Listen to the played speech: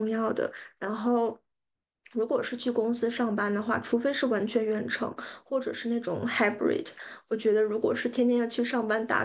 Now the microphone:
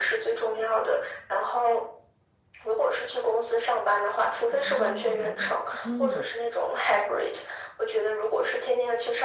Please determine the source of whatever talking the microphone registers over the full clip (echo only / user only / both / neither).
both